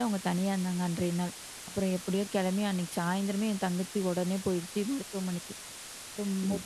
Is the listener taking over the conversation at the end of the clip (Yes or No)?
No